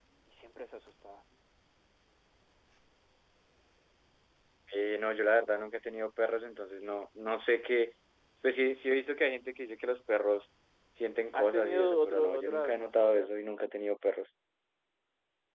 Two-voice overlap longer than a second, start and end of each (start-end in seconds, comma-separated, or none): 11.3-13.3